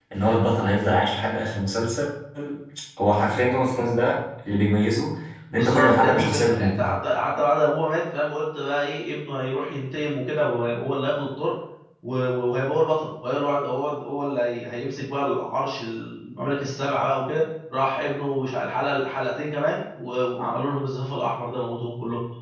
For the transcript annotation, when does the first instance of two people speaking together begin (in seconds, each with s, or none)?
5.5 s